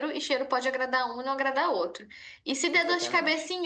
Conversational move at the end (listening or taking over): listening